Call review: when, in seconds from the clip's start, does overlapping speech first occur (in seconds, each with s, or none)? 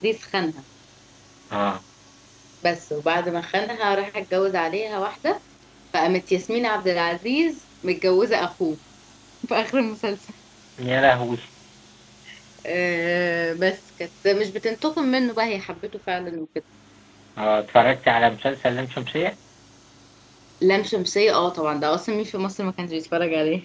none